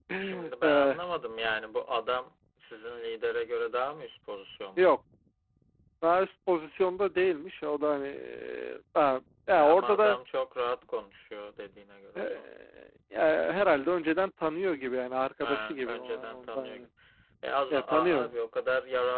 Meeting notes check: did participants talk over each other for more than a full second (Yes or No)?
Yes